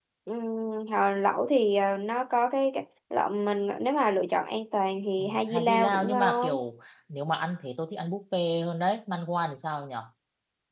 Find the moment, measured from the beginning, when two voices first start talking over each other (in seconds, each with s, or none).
5.2 s